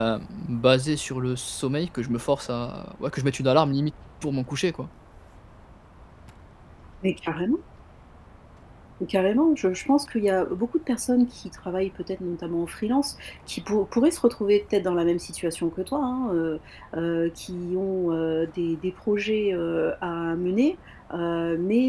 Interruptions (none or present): none